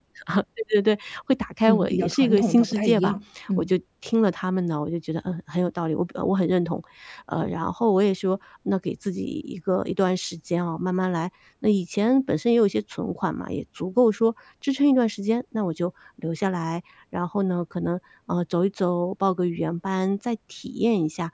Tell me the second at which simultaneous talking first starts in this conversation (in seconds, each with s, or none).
1.7 s